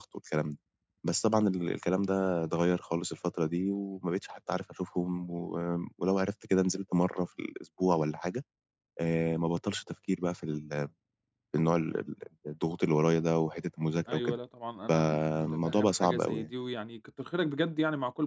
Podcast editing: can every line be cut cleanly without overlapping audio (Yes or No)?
No